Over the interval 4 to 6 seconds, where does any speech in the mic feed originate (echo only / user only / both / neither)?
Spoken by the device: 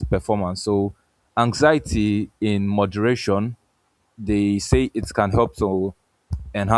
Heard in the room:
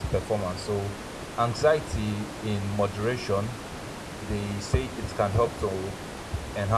echo only